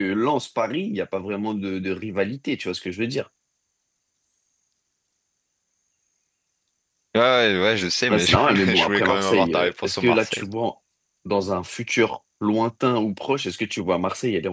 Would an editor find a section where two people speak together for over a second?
Yes, from 8.1 s

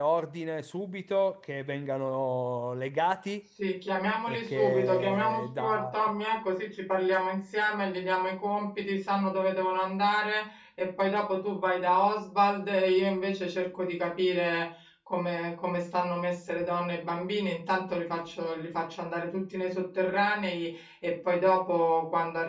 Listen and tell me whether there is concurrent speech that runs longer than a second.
Yes, from 4.3 s

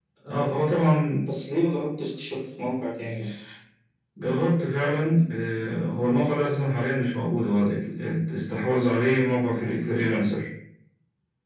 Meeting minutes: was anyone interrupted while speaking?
No

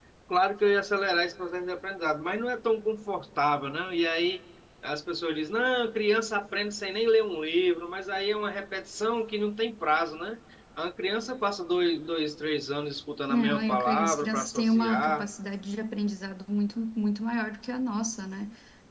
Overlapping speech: Yes, from 13.3 s

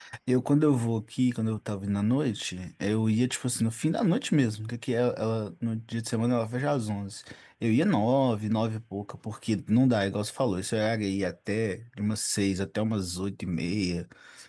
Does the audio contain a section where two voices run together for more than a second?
No

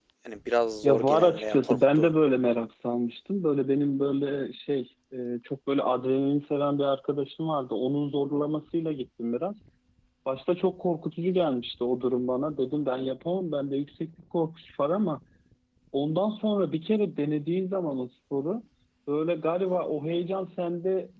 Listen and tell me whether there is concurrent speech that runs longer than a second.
Yes, from 0.8 s

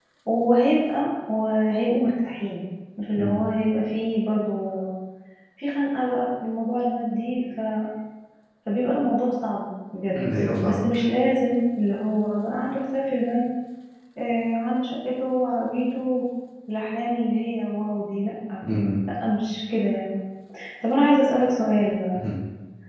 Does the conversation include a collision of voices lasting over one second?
No

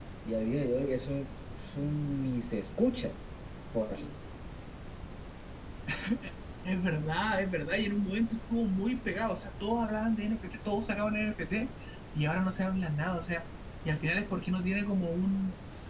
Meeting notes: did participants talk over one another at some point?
No

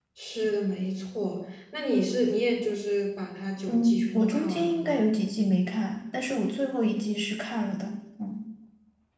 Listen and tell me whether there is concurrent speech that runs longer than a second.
Yes, from 3.7 s

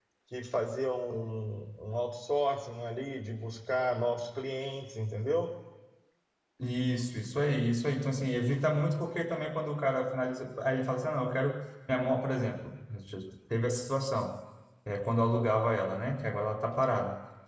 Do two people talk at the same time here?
No

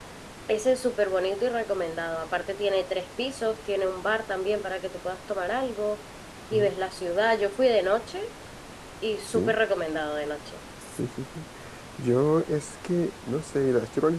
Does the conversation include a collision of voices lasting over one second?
No

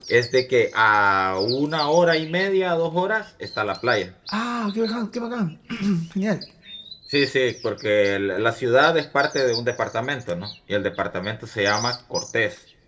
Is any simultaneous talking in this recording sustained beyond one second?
No

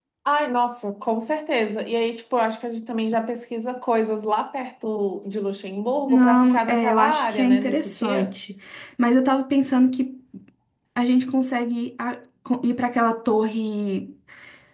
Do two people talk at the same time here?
Yes, from 6.1 s

